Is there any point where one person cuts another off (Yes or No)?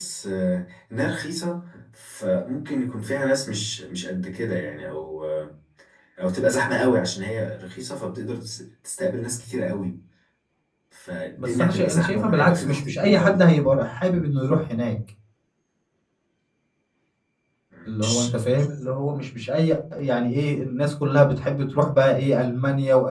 Yes